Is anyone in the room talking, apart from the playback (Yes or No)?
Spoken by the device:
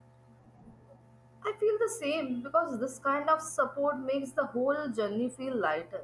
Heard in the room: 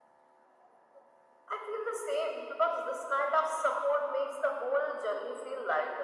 No